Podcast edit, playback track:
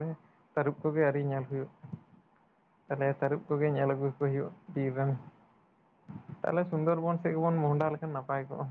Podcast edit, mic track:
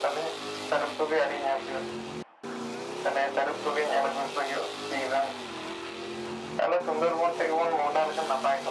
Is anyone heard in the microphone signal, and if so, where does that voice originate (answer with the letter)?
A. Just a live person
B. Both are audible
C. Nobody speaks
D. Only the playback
D